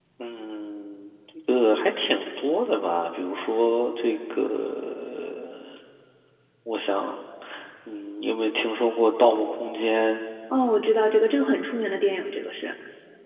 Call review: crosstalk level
none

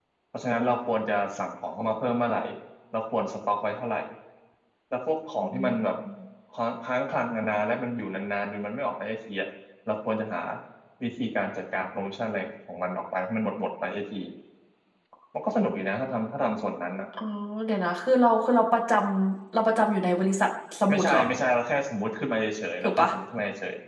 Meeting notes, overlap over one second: none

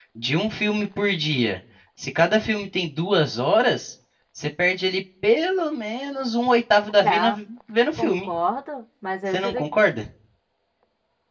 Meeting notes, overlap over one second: none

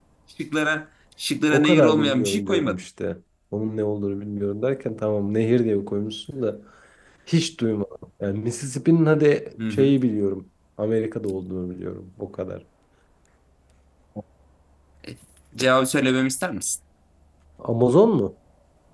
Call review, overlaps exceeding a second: present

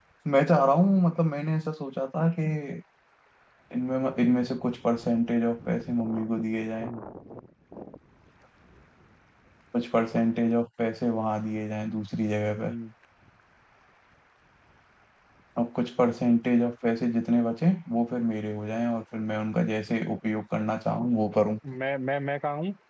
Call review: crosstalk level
none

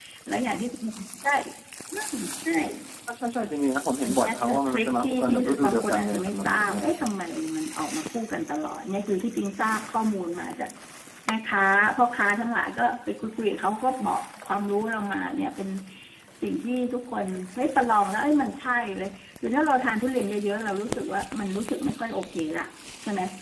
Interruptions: present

